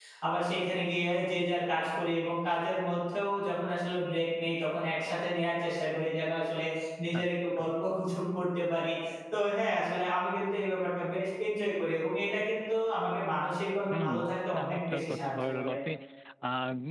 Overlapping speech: Yes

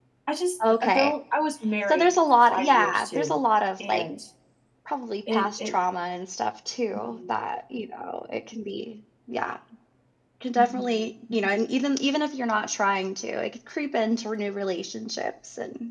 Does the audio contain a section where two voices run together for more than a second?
Yes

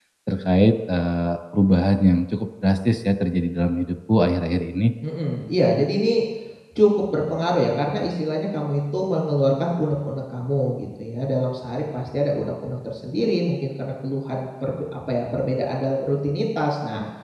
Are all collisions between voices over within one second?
Yes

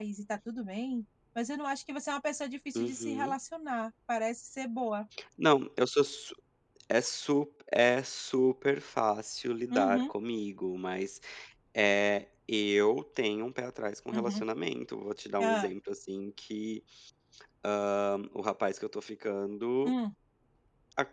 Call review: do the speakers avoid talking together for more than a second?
Yes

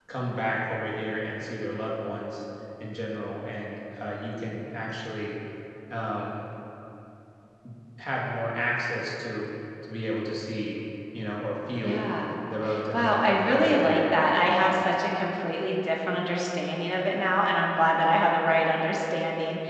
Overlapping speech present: Yes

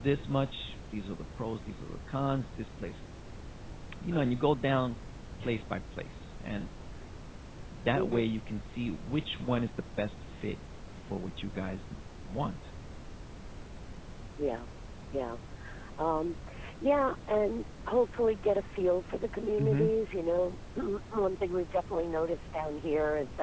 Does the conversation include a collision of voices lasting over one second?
No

